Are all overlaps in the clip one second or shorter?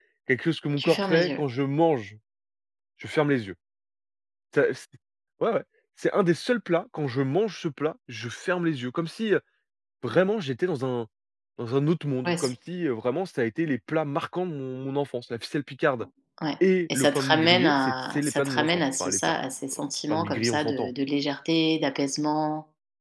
No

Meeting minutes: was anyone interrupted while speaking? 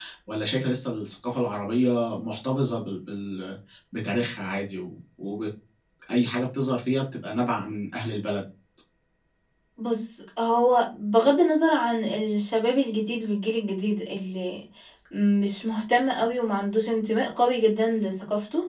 No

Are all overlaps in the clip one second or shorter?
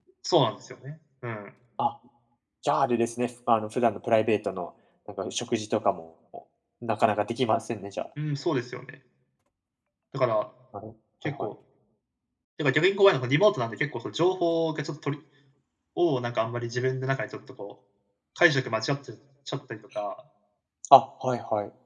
Yes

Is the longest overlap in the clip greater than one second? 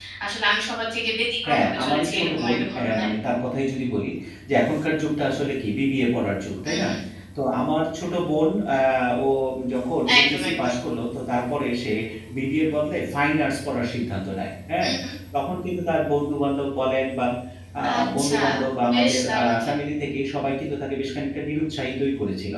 Yes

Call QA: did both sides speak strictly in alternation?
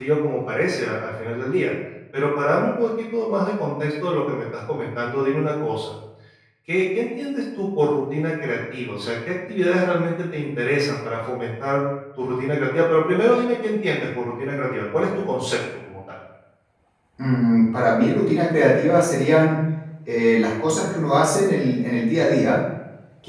Yes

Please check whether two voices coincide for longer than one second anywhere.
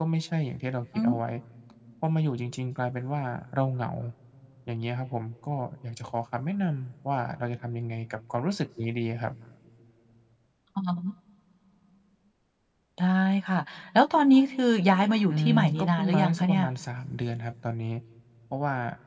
Yes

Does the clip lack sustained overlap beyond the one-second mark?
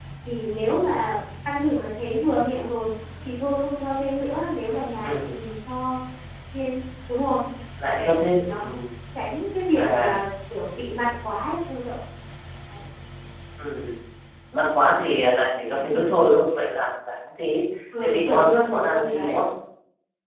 No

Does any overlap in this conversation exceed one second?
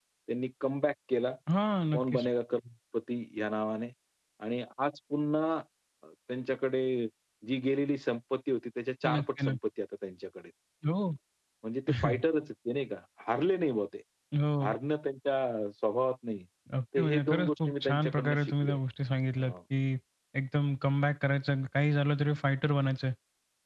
Yes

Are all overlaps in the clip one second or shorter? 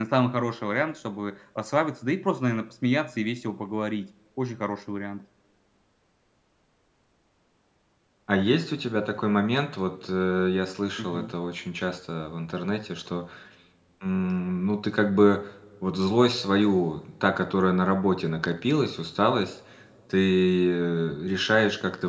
Yes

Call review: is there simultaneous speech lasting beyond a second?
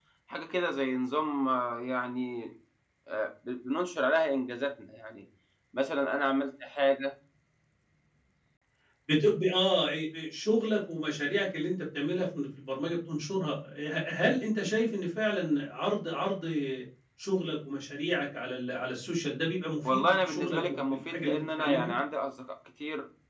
Yes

